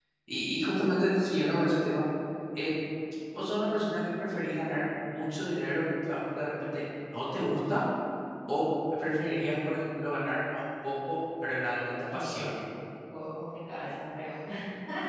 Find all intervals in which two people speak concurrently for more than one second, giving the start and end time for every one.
none

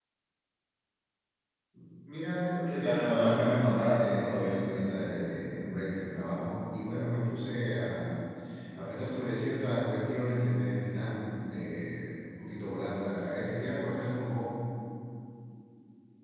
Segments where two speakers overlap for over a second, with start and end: 2.7-4.7

